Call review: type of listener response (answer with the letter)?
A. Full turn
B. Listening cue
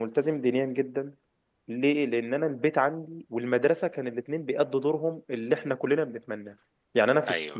B